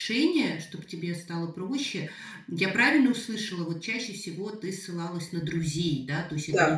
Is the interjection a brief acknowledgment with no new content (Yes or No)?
Yes